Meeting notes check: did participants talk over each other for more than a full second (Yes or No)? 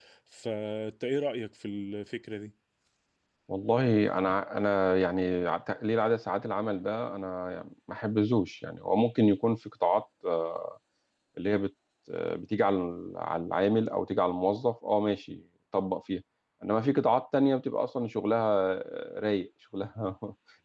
No